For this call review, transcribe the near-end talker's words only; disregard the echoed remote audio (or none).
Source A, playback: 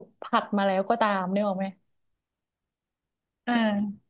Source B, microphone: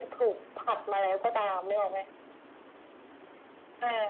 none